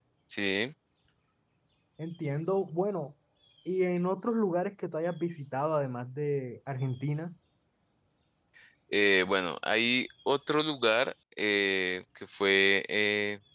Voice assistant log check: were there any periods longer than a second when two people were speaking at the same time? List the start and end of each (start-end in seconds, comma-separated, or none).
none